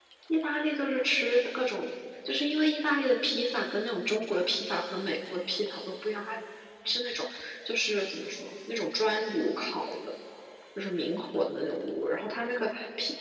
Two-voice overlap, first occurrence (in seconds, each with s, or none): none